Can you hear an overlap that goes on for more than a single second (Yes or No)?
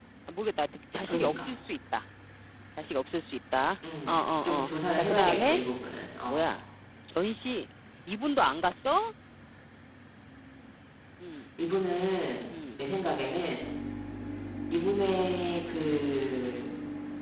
Yes